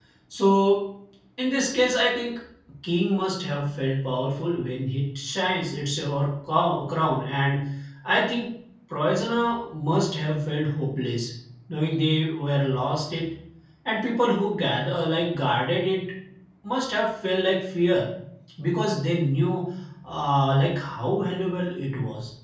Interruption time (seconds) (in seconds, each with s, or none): none